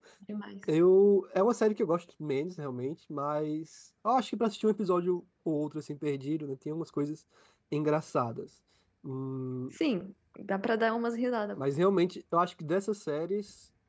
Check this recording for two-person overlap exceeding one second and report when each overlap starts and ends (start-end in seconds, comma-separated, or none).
none